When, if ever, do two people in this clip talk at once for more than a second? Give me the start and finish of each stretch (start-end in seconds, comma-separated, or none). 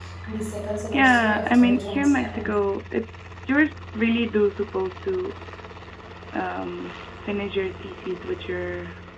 0.9-2.5